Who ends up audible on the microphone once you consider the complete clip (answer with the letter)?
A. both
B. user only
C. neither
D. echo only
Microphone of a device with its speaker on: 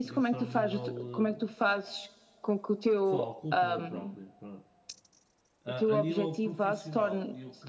A